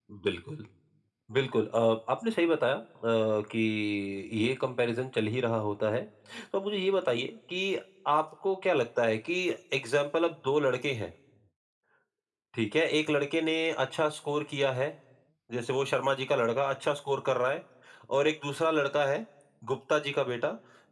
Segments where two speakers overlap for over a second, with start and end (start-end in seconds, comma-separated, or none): none